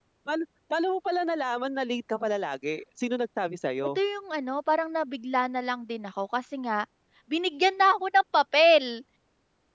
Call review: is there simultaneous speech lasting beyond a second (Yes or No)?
No